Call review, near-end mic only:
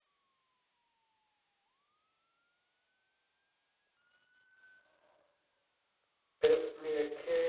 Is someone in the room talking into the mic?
Yes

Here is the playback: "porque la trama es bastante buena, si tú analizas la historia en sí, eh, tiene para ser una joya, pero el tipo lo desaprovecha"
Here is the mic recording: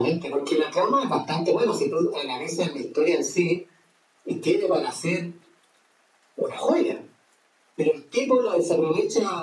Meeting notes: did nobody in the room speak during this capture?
Yes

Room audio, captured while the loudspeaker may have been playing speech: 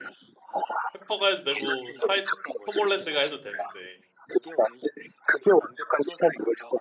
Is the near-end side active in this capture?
Yes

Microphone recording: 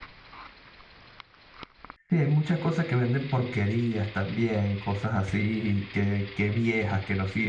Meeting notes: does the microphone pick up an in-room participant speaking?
Yes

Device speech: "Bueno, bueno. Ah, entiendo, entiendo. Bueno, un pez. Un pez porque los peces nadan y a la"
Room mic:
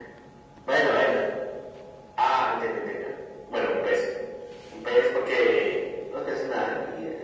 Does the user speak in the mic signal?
No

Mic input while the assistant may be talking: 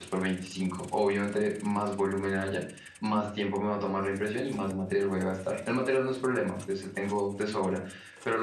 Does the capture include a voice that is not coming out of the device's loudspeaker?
Yes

